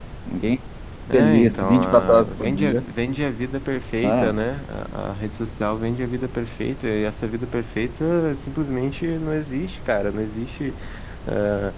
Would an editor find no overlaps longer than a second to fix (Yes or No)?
No